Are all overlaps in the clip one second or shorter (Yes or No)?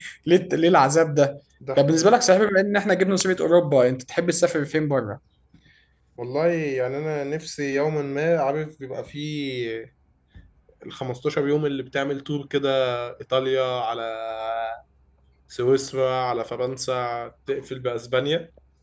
Yes